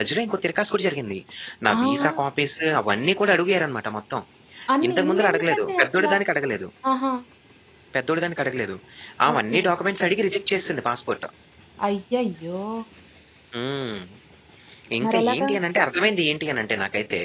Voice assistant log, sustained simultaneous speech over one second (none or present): present